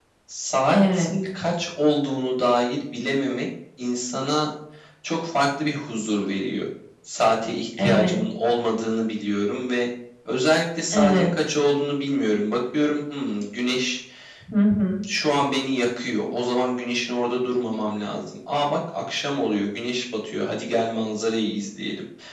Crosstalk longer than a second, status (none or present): none